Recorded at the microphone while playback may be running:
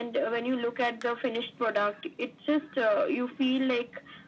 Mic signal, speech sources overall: echo only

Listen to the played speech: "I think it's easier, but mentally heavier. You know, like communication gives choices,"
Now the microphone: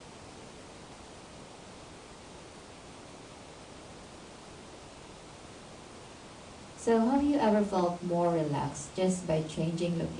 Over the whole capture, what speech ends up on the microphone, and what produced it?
user only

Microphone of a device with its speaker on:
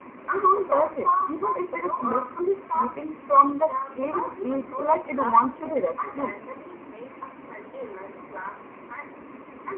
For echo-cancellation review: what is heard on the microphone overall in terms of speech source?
both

